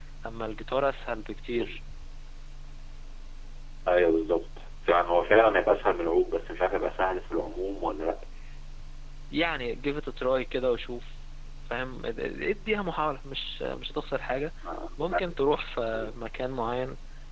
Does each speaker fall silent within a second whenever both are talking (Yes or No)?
Yes